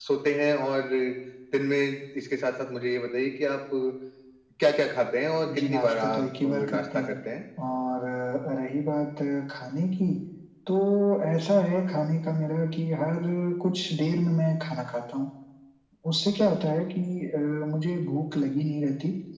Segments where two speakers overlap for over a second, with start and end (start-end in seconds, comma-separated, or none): 5.6-7.2